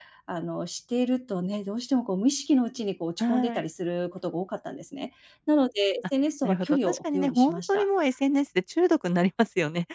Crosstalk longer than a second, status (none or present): present